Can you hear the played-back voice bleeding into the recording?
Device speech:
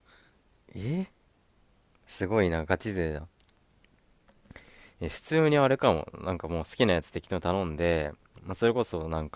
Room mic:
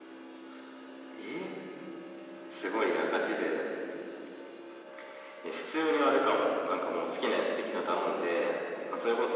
Yes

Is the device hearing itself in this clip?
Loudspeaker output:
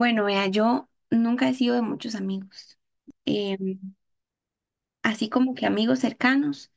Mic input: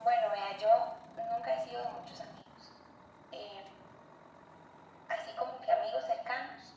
Yes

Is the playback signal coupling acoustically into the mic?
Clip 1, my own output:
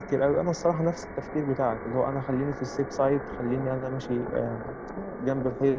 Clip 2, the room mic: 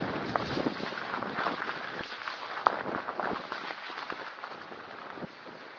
No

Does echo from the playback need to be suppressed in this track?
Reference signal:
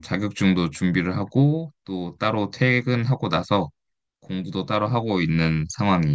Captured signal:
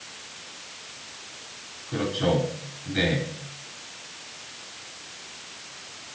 No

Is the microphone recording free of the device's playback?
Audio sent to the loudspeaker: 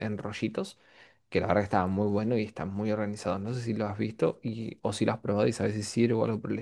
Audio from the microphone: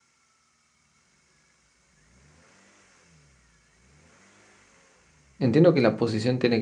Yes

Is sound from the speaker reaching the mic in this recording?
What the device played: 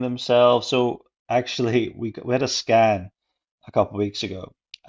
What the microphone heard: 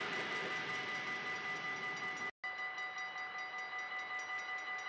No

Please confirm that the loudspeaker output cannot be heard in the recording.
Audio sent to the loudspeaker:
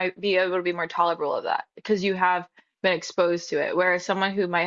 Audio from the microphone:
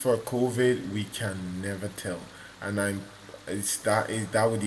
Yes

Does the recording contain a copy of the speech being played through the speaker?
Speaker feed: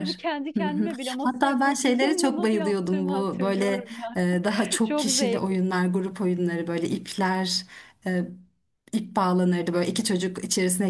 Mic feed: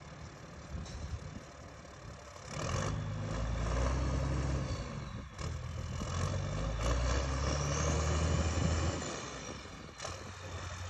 No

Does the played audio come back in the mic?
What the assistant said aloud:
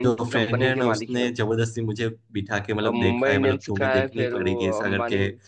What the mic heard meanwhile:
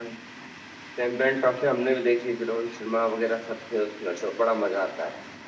No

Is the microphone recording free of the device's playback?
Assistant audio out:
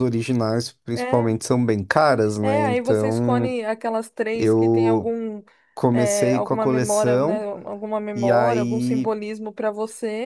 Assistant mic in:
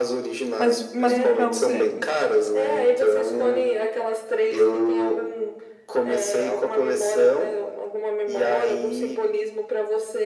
No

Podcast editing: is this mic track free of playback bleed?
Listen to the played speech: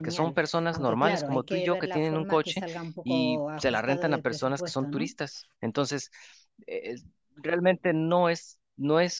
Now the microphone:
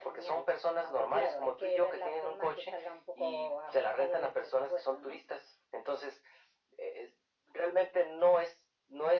No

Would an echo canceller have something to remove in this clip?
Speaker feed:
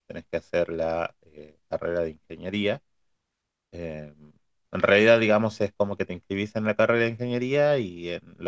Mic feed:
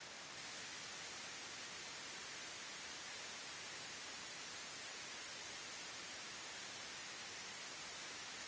No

